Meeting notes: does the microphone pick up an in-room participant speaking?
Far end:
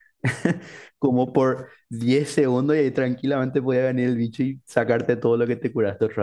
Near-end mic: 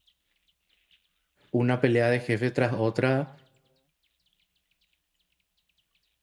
Yes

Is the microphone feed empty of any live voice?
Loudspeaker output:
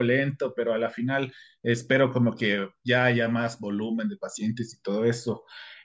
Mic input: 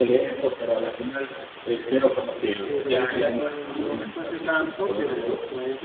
No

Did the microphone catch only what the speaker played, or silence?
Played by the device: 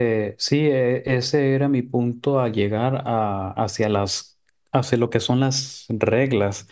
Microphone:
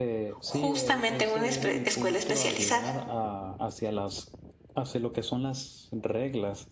No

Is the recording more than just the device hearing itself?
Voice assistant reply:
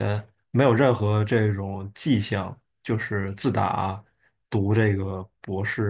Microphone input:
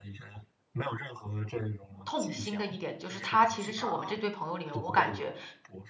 Yes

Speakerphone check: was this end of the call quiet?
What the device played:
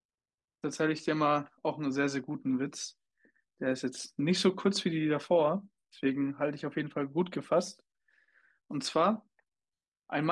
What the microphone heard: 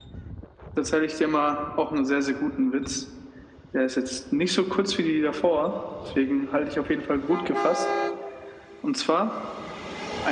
Yes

